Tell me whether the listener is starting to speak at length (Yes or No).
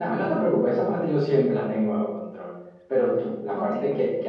No